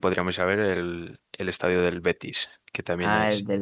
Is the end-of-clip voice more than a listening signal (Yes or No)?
Yes